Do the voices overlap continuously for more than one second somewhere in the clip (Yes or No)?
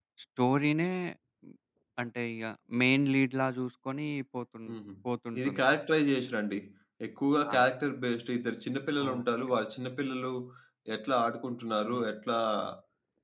No